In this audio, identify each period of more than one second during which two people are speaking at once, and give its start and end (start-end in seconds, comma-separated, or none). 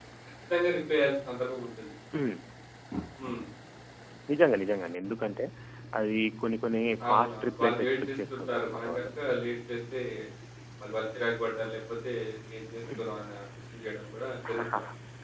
7.1-9.1